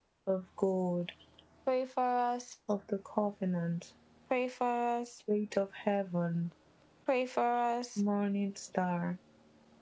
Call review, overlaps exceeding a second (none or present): none